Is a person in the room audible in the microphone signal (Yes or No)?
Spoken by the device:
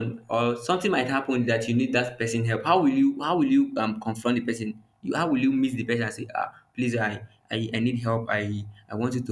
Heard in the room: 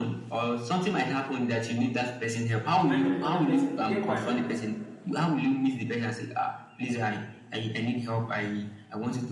Yes